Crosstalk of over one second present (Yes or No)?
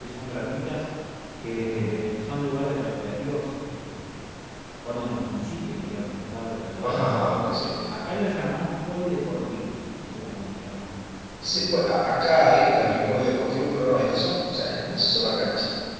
No